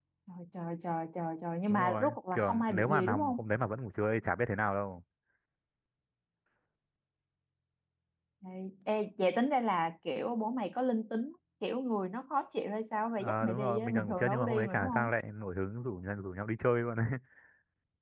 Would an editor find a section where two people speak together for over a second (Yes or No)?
Yes